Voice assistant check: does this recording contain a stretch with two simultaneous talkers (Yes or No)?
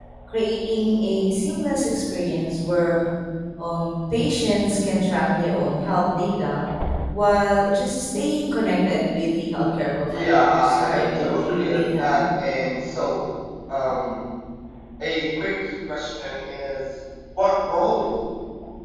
Yes